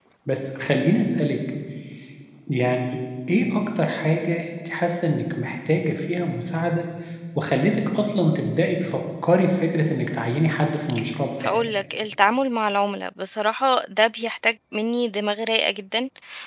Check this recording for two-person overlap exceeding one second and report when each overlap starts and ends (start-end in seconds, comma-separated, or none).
none